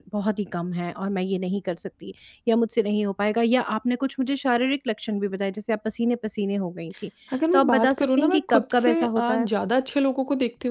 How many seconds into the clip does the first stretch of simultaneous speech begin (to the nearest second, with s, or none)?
8 s